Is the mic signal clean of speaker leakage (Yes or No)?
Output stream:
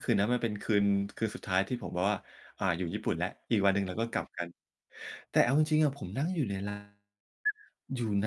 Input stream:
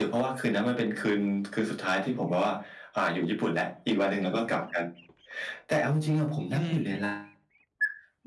No